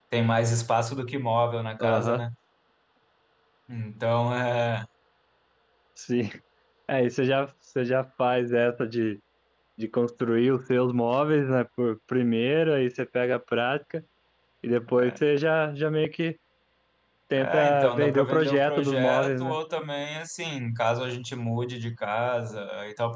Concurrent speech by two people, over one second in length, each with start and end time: 17.4-19.6

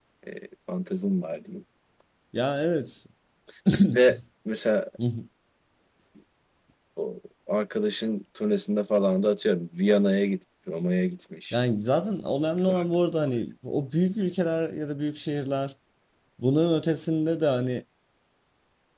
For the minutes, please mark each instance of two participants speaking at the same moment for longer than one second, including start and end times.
none

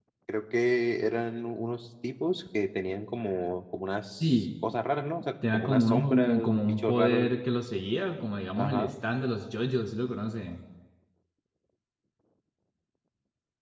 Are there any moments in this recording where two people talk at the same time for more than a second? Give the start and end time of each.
5.5-7.3

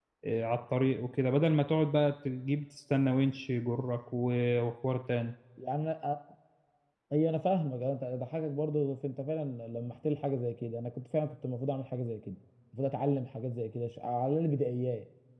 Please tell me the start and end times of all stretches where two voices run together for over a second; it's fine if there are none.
none

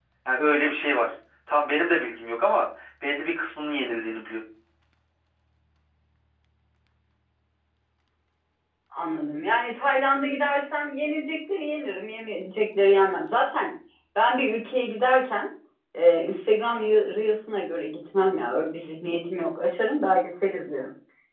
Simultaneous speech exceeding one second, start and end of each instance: none

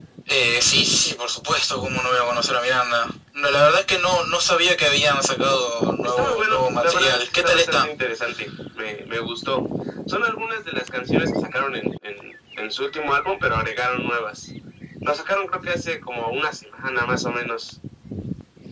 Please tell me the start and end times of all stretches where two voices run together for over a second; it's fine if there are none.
6.0-7.9

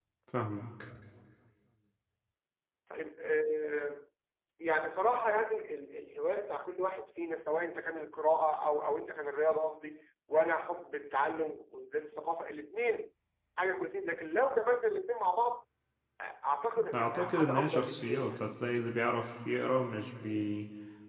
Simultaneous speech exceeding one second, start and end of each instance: 16.9-18.4

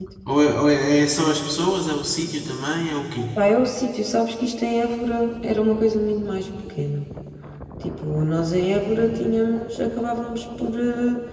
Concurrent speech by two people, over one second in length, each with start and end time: none

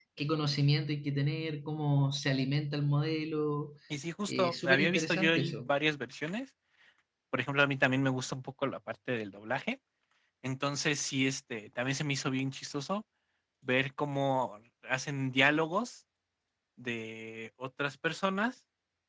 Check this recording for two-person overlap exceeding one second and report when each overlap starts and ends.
4.3-5.7

